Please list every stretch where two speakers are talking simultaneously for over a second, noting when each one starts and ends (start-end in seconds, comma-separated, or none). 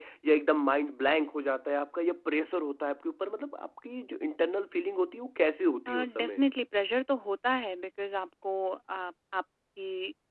none